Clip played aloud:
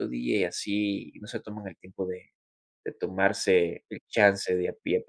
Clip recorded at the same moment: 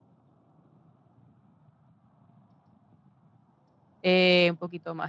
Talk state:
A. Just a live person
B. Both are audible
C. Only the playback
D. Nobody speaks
A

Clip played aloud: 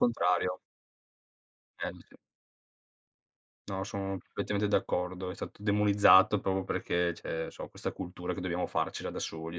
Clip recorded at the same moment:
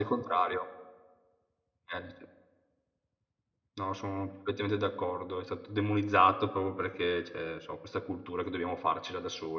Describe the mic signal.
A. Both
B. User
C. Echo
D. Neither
C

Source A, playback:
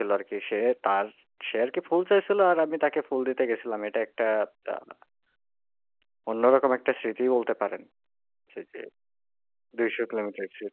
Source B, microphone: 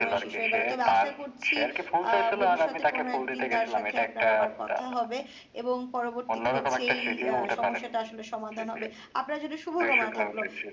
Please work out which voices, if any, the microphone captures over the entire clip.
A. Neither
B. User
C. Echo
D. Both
D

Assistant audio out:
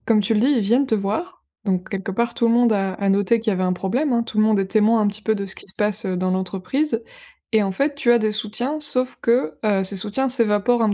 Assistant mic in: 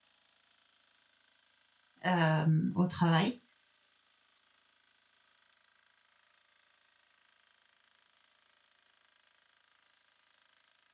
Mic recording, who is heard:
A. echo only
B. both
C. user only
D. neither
C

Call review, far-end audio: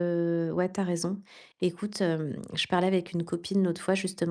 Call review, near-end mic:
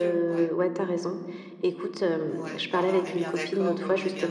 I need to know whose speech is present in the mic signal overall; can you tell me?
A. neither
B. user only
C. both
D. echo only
C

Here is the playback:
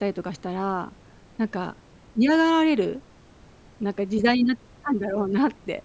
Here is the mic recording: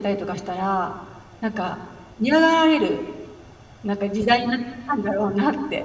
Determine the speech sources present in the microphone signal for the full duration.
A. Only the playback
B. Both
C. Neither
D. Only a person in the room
A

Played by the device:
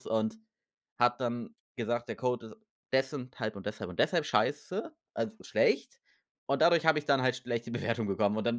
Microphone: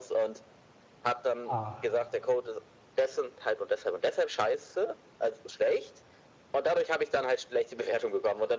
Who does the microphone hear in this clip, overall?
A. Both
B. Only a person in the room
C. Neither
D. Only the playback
A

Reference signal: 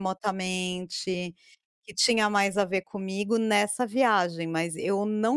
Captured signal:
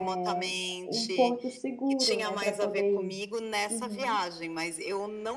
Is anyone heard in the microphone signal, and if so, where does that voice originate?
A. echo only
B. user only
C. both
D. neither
C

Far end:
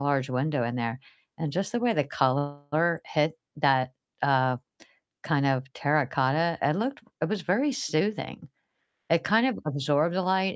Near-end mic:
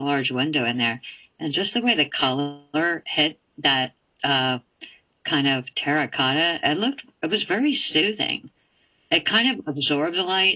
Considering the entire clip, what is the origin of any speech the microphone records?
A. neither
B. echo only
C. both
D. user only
B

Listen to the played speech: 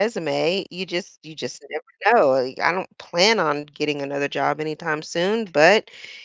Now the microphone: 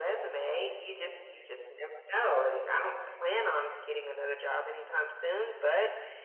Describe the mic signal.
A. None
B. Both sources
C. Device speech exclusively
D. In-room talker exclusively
C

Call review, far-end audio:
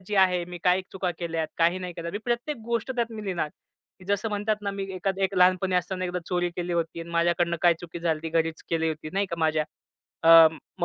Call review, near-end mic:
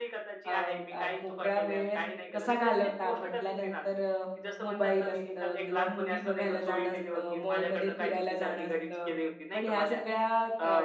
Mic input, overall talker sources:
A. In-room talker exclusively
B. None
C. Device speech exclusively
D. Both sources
D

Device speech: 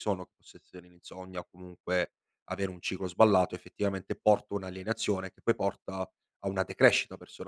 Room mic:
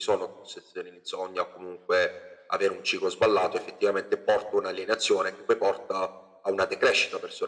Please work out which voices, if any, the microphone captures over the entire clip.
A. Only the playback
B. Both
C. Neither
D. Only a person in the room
A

